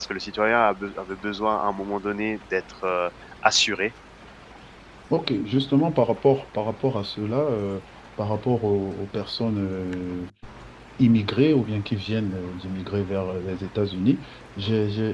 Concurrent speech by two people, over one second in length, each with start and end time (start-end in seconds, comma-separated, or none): none